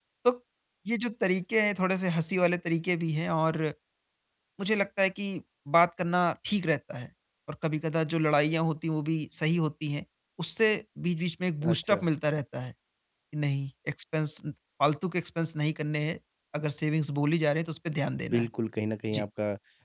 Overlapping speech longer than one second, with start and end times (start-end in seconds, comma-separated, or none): none